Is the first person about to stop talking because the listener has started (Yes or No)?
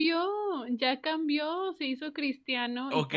Yes